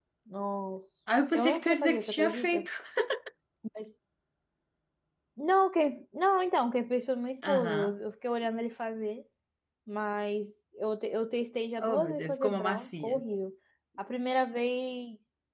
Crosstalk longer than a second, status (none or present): present